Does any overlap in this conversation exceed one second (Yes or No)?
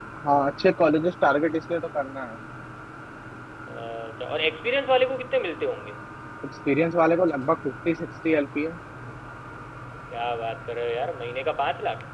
No